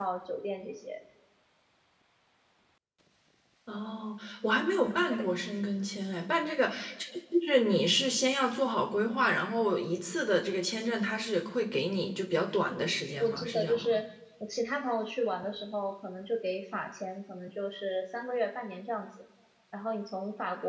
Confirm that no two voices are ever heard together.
No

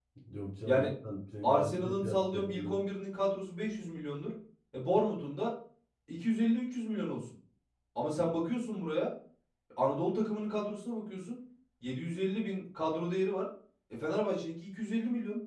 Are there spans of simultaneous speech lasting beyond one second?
Yes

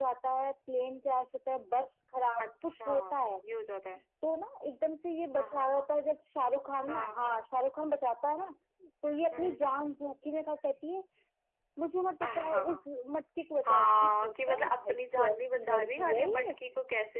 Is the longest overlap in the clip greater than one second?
Yes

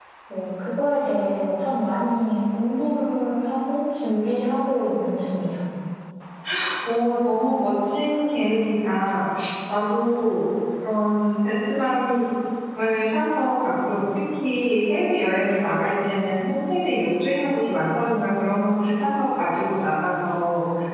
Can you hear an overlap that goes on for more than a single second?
No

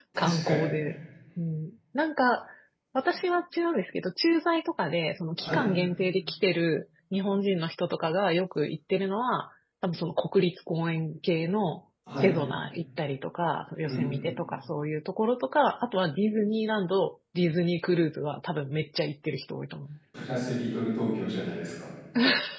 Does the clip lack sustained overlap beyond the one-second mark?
Yes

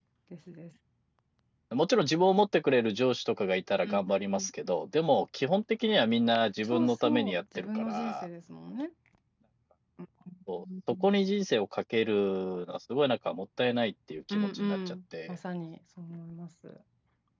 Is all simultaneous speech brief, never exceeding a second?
No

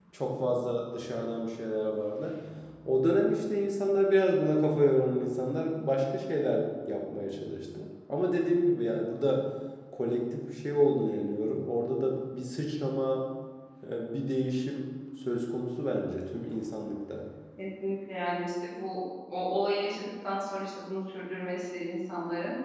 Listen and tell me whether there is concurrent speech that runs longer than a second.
No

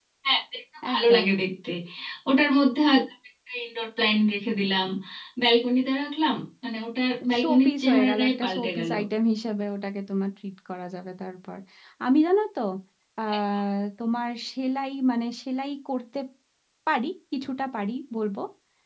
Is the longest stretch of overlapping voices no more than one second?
No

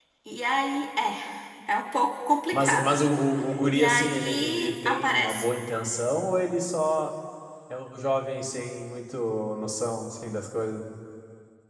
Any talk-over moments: Yes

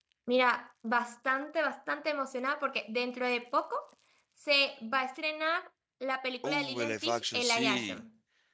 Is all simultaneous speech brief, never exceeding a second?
No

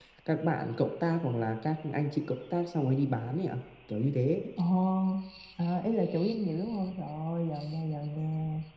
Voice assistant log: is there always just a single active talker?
Yes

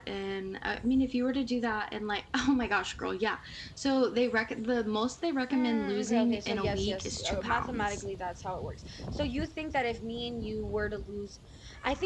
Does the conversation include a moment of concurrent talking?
Yes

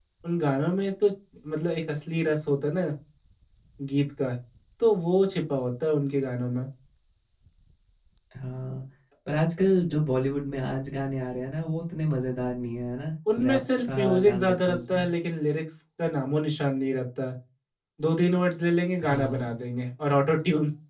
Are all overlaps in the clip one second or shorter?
No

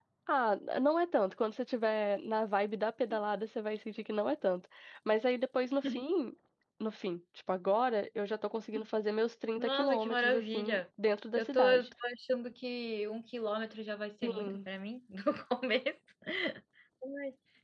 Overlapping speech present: Yes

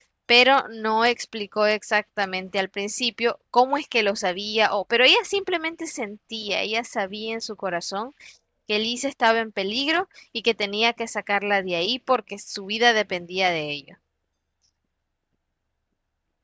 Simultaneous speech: No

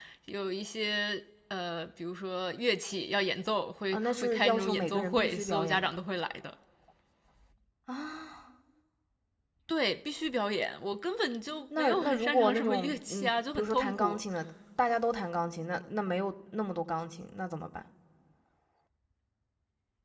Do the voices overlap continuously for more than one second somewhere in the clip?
Yes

